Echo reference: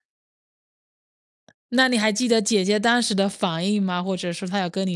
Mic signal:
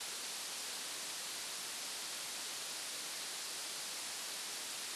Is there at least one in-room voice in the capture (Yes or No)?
No